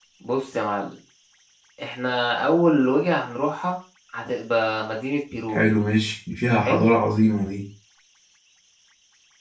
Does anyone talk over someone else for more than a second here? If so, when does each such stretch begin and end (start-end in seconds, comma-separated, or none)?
none